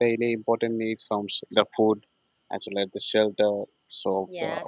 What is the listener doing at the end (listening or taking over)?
taking over